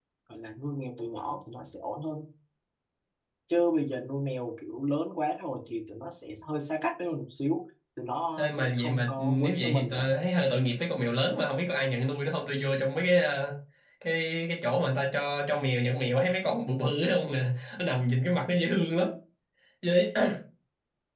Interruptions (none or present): present